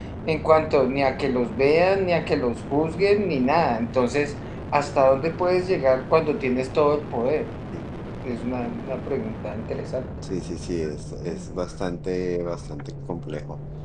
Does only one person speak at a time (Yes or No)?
Yes